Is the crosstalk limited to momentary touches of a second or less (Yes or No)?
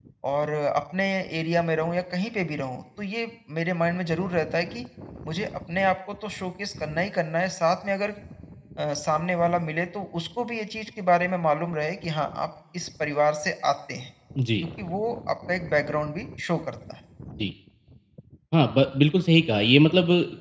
Yes